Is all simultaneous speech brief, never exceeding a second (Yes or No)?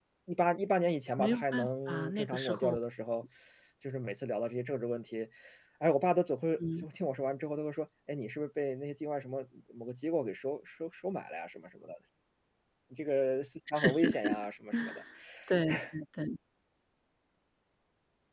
No